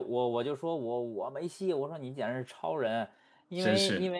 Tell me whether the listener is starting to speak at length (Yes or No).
No